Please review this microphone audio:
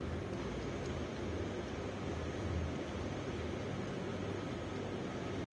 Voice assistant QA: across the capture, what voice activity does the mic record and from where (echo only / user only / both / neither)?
neither